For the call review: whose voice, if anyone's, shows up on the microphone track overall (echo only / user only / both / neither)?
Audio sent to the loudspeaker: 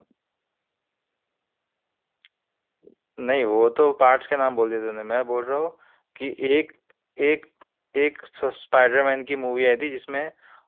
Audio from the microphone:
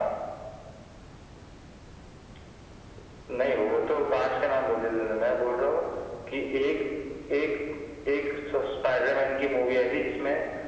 echo only